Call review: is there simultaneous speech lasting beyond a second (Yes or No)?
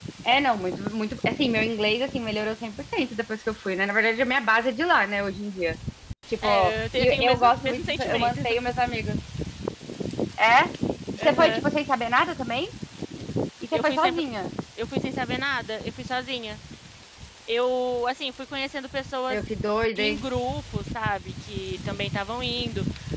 Yes